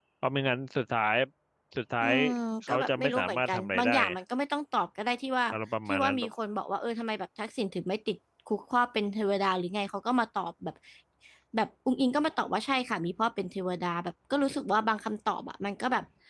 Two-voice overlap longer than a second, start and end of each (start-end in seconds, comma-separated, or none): 2.7-4.1